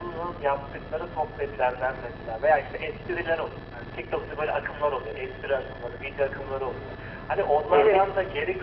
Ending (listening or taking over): listening